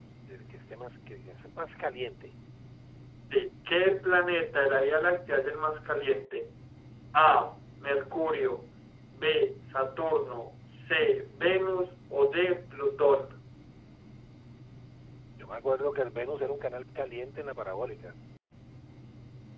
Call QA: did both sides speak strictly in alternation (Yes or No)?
Yes